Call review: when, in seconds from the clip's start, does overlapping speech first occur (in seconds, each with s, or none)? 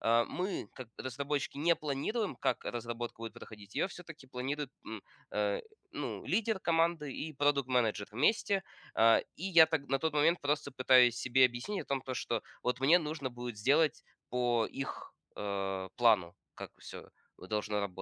none